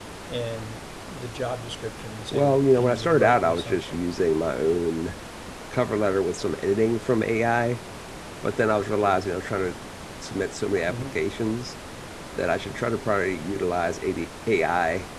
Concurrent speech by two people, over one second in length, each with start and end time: 2.3-4.0

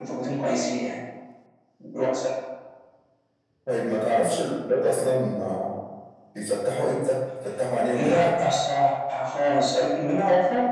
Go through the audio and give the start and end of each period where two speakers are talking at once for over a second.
none

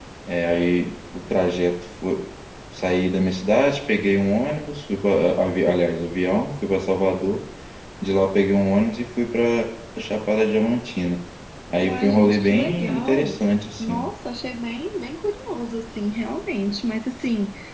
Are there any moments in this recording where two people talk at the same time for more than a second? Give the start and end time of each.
11.8-13.4

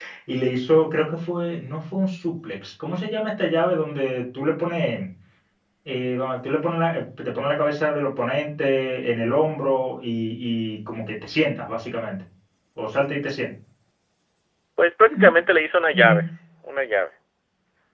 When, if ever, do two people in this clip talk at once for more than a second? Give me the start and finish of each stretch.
none

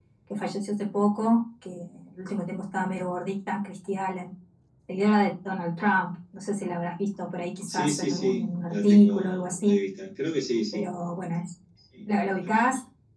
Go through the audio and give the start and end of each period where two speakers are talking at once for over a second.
7.7-9.7

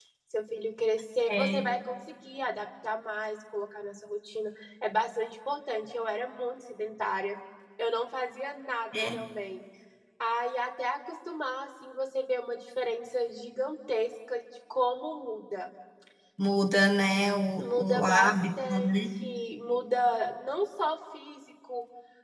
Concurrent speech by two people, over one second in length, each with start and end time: 17.6-19.0

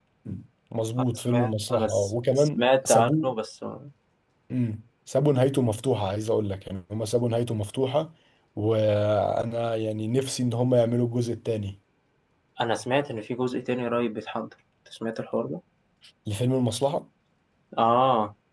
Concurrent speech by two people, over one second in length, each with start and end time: 1.1-3.2

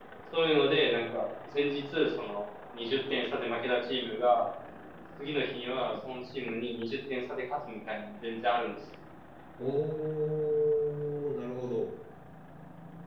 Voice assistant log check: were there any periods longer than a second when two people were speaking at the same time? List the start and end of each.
none

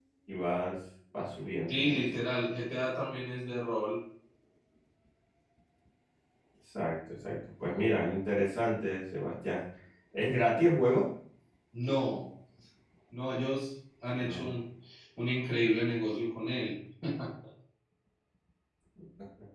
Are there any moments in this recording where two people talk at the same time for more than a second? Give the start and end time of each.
none

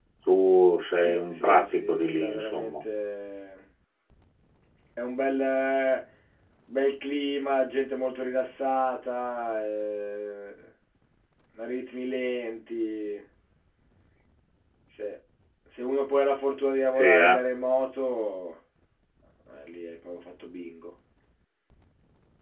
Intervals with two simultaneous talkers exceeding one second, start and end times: 1.0-2.8

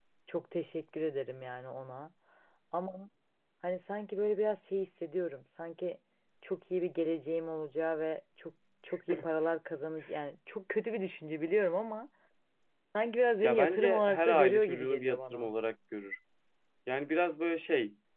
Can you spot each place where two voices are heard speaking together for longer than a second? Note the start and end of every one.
13.4-15.5

